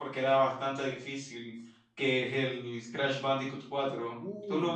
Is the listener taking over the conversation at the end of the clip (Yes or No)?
Yes